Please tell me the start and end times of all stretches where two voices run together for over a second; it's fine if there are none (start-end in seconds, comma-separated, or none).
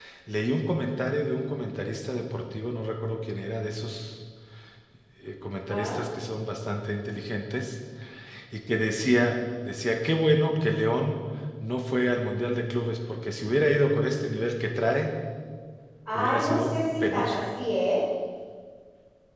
16.1-17.4